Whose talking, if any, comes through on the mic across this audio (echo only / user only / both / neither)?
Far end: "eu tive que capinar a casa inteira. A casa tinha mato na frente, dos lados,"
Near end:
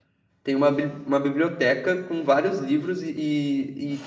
user only